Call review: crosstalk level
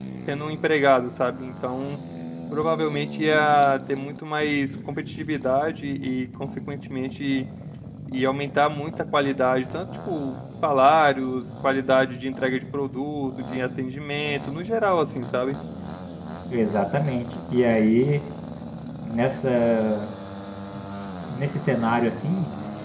none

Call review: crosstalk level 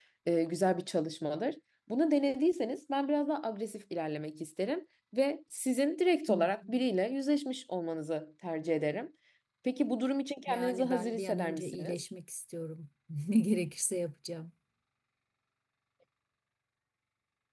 present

